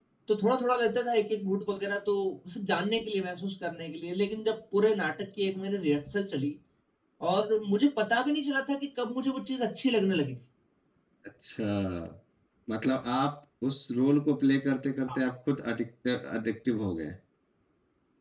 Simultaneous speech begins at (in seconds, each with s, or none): none